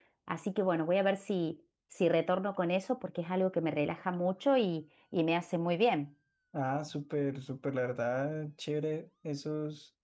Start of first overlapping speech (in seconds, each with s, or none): none